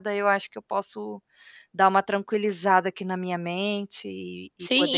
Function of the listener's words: taking over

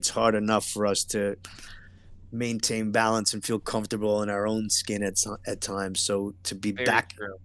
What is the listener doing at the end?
listening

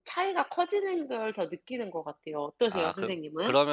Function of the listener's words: taking over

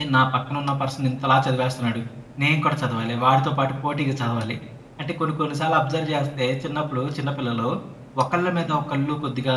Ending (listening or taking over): listening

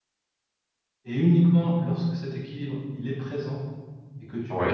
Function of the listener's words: listening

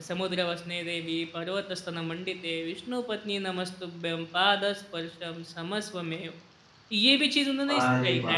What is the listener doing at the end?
taking over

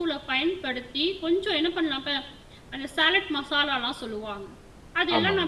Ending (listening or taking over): listening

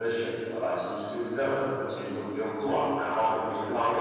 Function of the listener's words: listening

